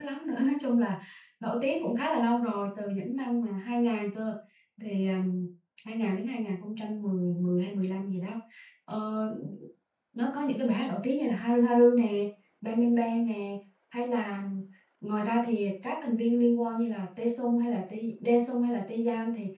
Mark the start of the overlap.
none

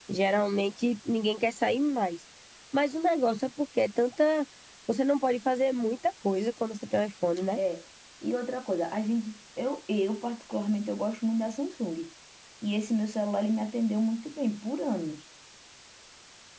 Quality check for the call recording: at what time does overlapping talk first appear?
none

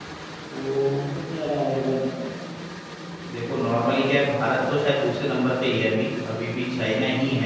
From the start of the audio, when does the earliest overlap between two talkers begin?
none

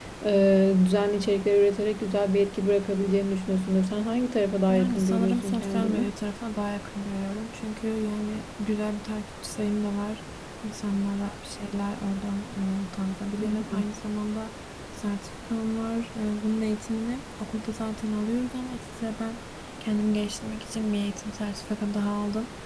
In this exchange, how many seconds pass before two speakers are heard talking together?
4.7 s

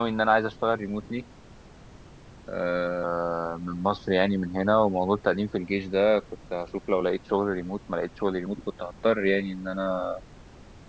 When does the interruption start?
none

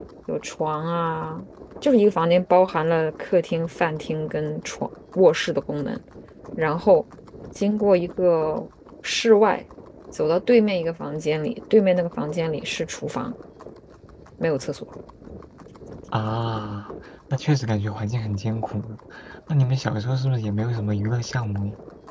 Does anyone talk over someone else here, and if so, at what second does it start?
none

